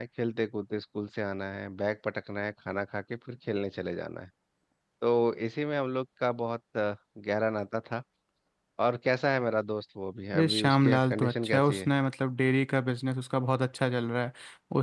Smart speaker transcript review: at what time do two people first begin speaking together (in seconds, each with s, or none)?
10.3 s